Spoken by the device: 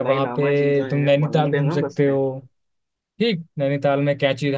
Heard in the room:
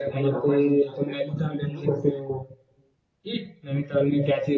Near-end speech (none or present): none